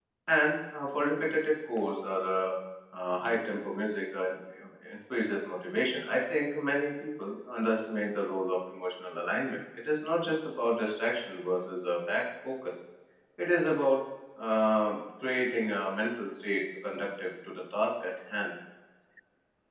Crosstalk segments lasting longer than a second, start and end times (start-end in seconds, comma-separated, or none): none